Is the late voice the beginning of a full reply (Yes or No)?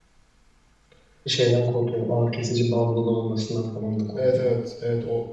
Yes